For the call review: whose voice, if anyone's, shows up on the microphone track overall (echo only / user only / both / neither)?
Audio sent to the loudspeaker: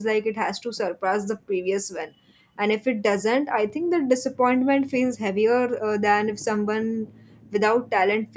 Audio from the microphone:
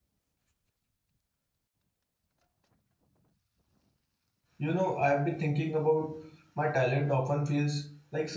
user only